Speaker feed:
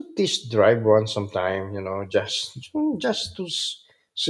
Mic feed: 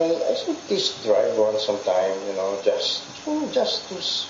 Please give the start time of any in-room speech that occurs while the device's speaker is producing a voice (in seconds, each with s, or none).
none